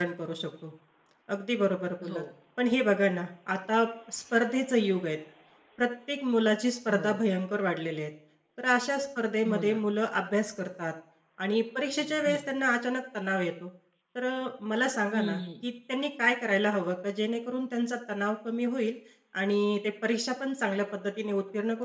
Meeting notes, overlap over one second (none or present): none